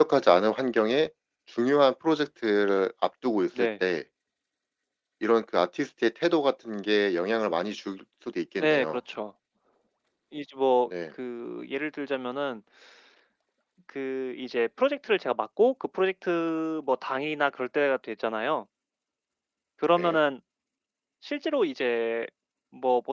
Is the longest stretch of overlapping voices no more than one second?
Yes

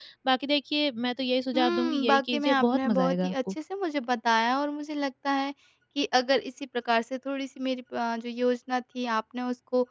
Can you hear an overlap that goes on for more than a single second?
Yes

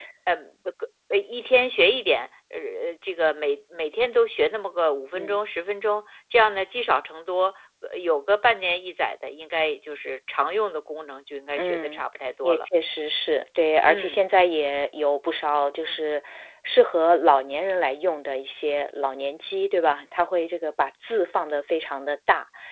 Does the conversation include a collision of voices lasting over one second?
No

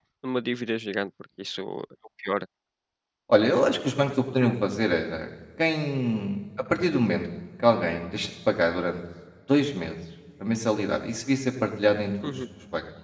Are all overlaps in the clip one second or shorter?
Yes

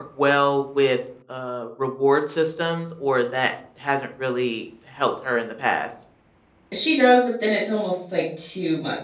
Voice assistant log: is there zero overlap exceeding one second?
Yes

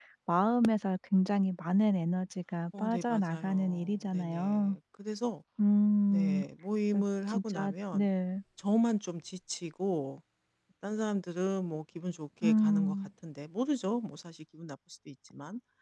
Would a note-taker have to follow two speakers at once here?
Yes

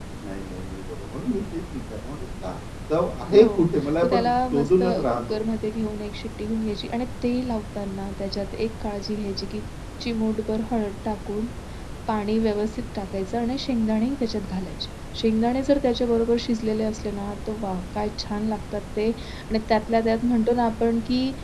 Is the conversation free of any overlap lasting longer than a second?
No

